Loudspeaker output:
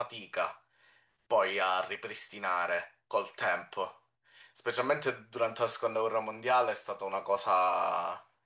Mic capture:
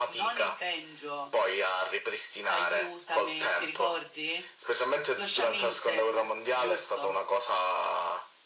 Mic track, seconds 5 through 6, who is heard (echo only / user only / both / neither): both